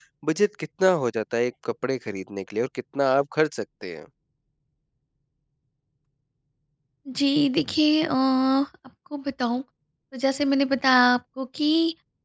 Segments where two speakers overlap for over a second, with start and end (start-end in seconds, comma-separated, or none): none